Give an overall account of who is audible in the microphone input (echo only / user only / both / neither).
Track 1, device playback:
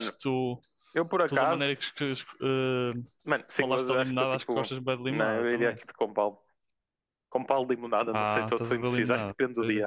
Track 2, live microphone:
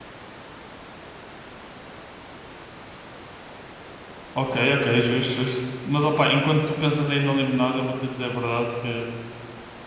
user only